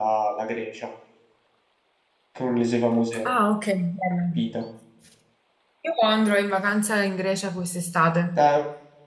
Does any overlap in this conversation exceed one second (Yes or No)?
No